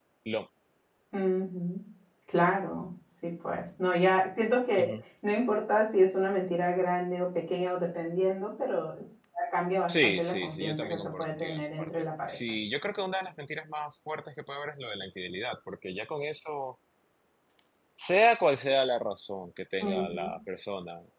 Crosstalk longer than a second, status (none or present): present